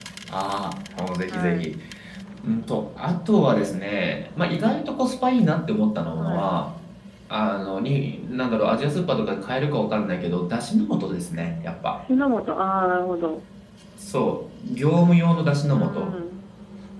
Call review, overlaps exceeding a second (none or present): none